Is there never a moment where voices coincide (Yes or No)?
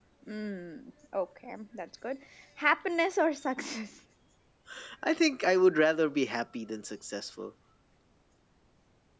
Yes